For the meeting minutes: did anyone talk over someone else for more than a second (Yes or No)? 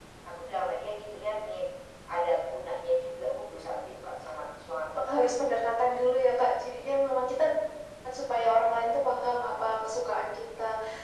No